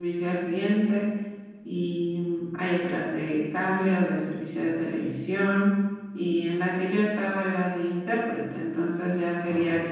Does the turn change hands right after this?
No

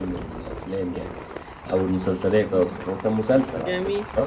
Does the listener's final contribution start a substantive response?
Yes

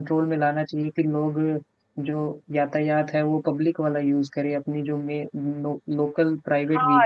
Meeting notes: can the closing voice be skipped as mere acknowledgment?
No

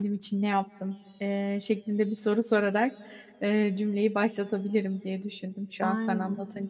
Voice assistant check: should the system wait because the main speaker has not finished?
Yes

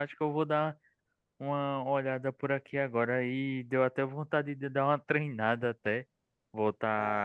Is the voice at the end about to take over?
No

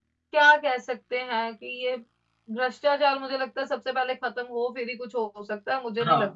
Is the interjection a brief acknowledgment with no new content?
No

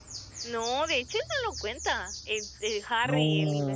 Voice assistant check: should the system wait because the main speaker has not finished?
Yes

